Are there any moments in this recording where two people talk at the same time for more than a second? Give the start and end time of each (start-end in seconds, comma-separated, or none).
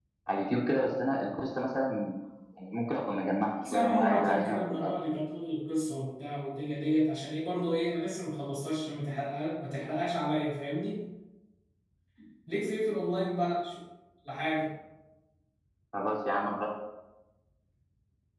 3.6-4.9